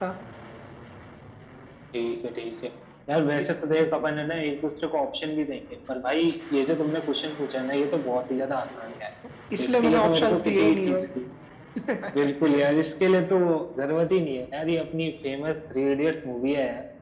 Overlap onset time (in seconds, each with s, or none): 9.6 s